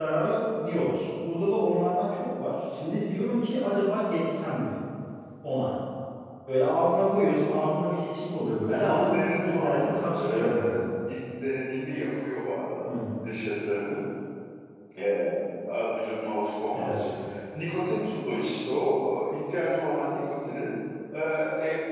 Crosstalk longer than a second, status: present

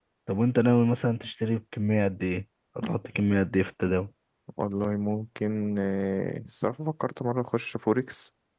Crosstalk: none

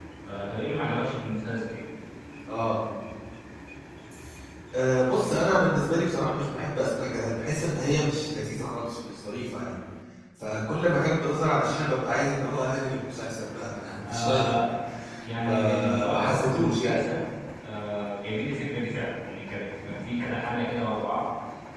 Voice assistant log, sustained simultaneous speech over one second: present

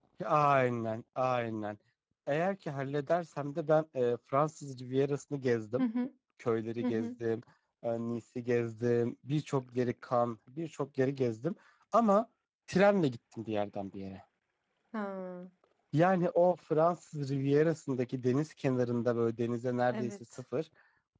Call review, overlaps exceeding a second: none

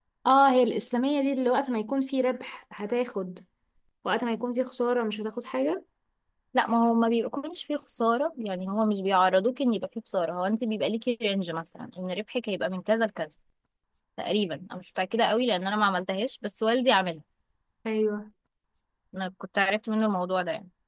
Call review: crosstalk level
none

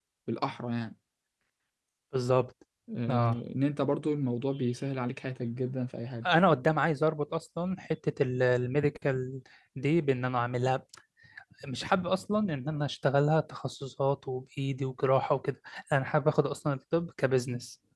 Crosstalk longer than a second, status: none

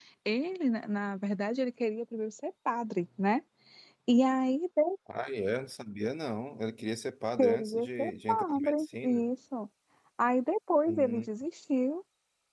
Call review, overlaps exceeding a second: present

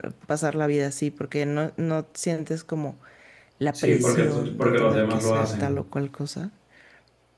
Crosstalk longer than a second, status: present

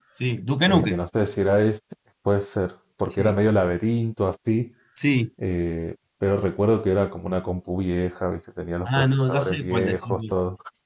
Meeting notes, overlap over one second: present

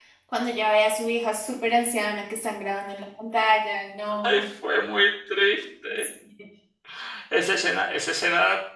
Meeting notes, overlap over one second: none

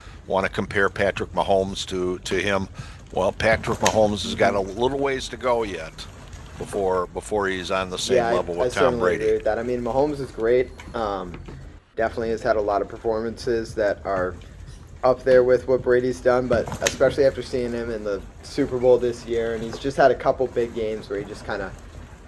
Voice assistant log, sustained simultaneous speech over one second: present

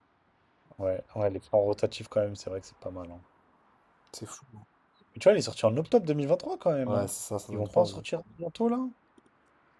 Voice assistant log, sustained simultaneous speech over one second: none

